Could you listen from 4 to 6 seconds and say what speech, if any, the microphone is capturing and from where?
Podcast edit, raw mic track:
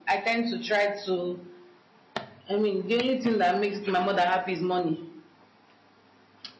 echo only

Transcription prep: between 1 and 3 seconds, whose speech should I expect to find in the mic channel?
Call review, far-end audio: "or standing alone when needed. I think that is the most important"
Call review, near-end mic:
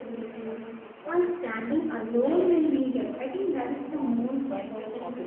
both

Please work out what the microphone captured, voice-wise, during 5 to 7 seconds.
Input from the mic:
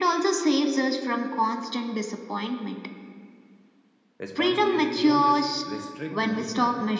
both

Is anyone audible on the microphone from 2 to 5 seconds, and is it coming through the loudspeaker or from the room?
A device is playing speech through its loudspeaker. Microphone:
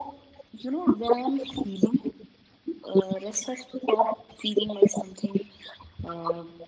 echo only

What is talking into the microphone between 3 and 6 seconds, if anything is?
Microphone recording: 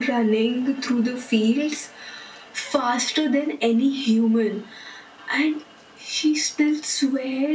echo only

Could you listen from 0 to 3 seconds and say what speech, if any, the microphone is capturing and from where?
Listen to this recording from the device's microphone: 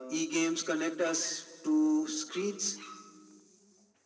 echo only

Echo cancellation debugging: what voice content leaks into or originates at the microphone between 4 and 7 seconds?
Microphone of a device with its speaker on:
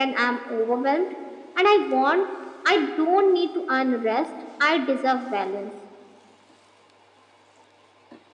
echo only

